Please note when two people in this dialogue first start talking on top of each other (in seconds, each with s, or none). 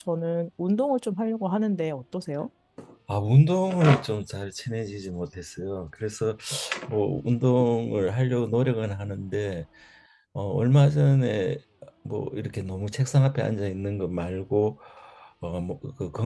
none